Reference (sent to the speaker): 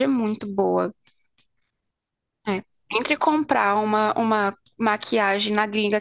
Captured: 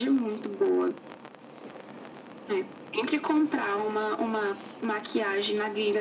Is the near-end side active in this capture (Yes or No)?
No